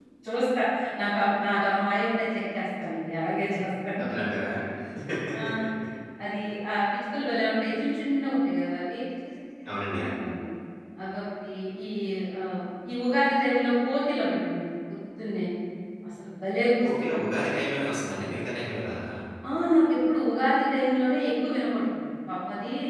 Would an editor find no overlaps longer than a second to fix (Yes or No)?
Yes